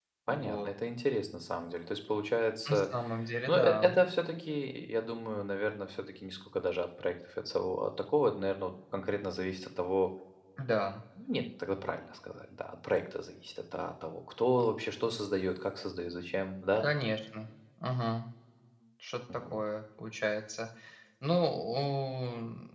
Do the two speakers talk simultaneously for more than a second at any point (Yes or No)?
No